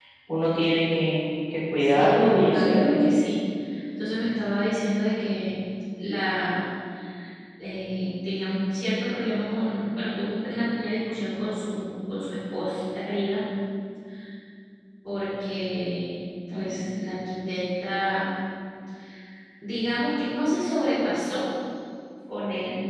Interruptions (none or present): present